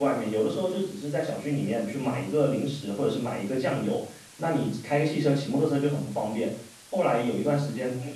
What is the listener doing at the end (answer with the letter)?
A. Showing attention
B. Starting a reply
A